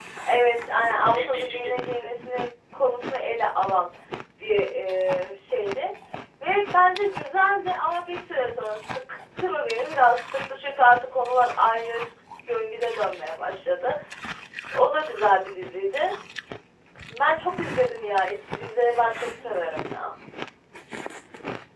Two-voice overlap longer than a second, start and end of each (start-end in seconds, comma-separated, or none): 0.7-2.1